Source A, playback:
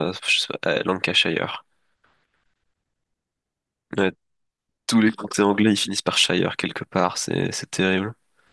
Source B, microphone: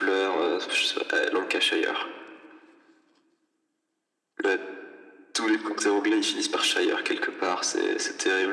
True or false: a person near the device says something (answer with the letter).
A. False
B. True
A